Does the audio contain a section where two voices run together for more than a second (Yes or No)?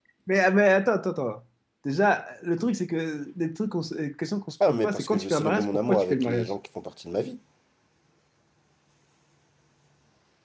Yes